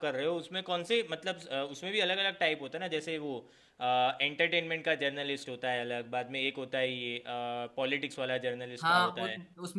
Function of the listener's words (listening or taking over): taking over